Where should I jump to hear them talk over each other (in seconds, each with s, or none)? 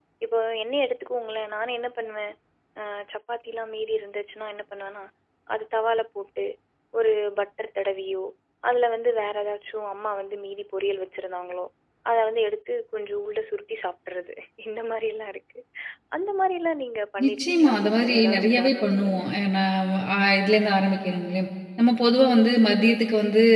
17.2 s